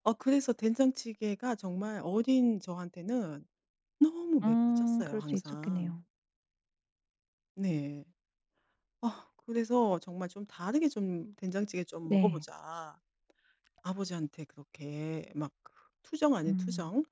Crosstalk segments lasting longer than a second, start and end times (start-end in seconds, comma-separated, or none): 4.4-5.9